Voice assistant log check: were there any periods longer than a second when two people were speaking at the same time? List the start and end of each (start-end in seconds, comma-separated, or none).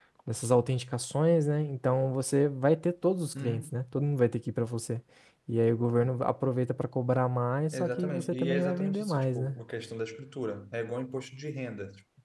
7.7-9.6